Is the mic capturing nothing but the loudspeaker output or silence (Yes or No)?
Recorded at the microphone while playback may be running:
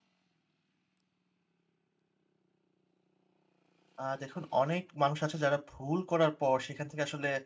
No